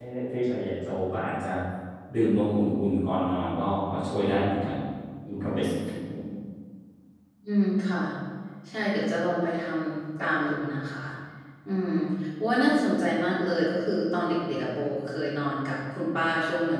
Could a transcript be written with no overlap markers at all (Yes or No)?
Yes